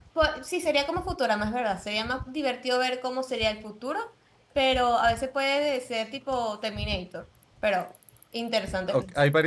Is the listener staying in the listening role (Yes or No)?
No